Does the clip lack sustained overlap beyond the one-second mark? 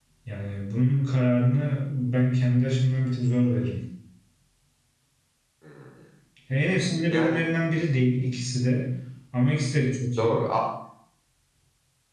Yes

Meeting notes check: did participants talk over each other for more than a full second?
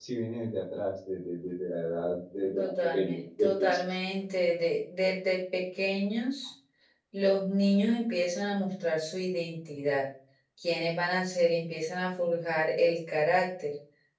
Yes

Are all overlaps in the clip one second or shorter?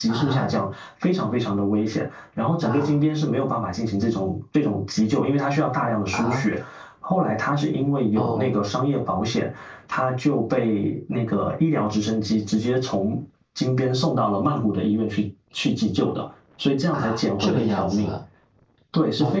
No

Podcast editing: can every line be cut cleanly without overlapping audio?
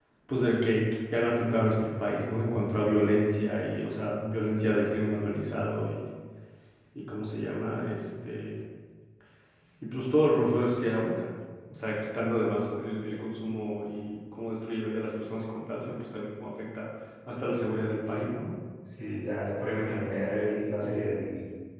Yes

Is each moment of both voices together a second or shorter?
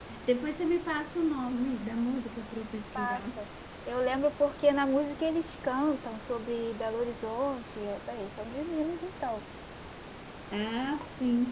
Yes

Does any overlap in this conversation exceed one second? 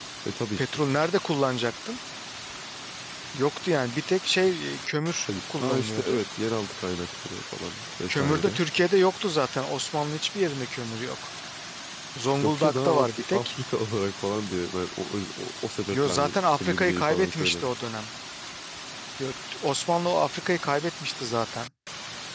Yes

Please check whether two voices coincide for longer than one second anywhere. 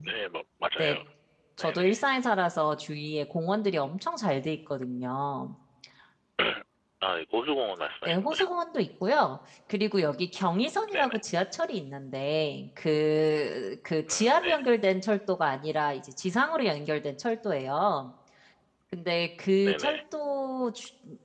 No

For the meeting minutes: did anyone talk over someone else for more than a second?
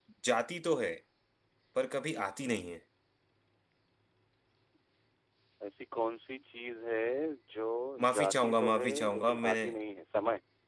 Yes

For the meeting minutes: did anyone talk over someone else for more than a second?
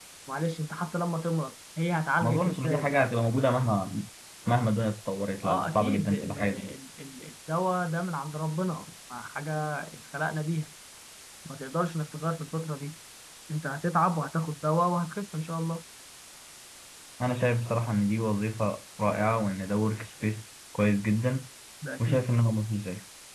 Yes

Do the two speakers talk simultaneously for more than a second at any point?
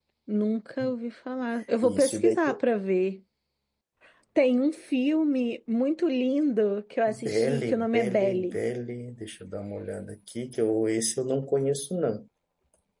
Yes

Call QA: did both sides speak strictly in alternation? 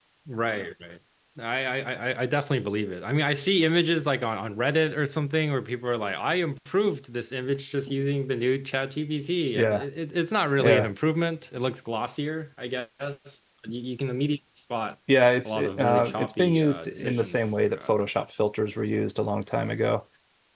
No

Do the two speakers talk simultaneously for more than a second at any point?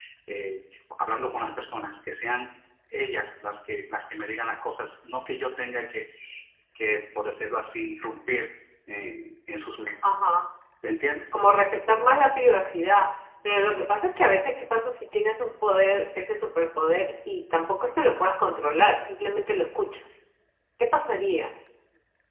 No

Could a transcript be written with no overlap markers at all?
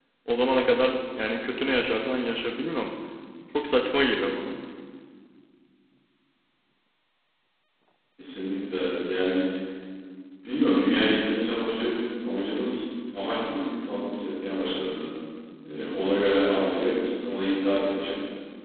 Yes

